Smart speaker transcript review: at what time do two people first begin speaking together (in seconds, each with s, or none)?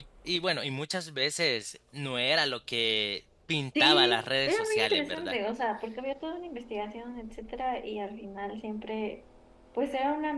3.8 s